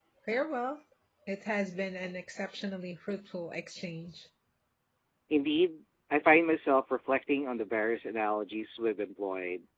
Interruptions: none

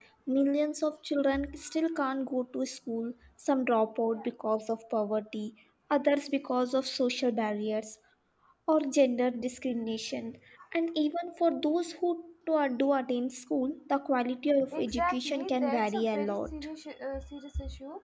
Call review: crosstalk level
present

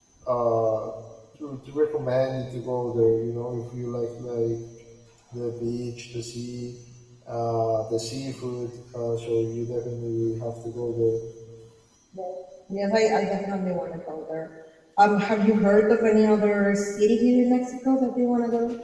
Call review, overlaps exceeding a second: none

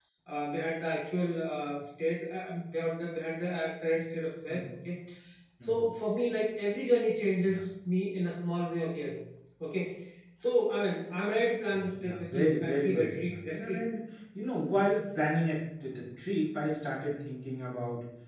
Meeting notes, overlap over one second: present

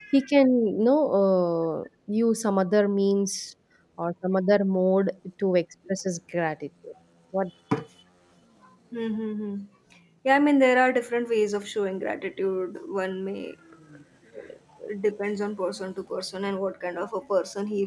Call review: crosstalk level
none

